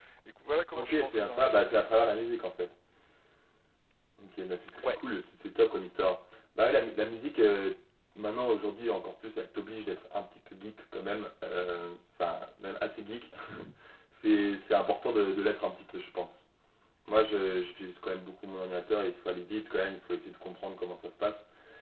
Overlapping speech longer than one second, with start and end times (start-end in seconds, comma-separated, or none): 0.7-2.2